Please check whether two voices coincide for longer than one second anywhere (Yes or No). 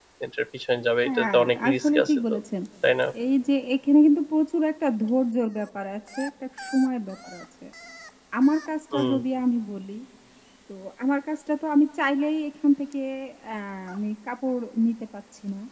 Yes